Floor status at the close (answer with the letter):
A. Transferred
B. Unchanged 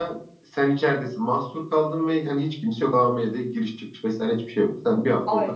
A